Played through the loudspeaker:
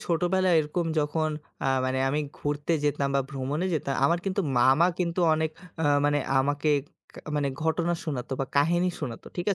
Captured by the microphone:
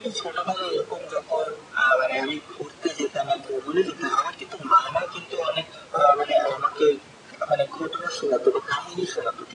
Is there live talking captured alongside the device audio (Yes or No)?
No